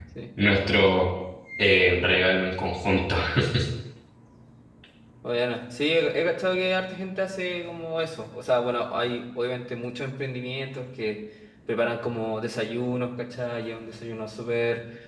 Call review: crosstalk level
none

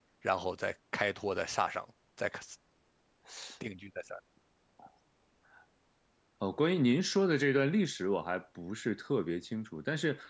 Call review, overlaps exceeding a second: none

